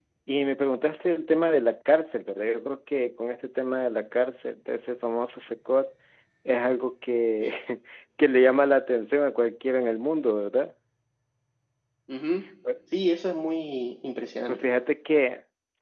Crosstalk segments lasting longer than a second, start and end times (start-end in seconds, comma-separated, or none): none